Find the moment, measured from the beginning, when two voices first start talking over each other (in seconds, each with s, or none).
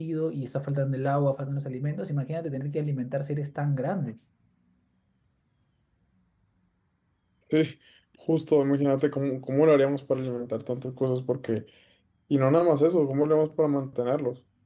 none